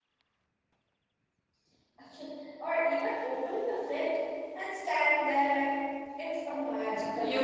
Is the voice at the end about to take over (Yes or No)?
Yes